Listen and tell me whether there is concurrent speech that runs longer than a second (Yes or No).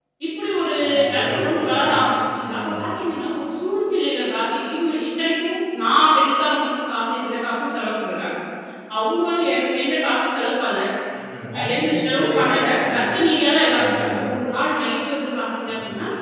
Yes